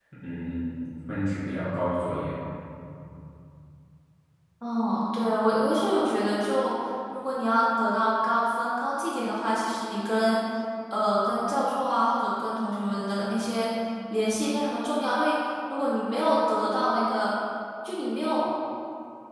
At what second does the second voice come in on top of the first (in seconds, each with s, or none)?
none